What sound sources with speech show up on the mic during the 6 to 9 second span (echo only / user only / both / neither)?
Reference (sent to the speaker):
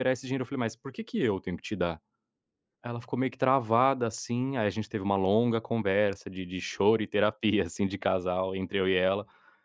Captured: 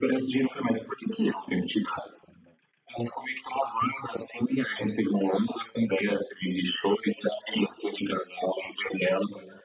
echo only